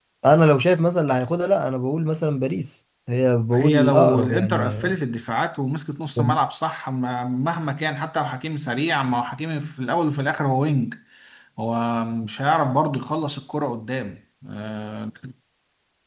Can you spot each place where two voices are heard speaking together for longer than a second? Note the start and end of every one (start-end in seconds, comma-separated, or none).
3.5-4.8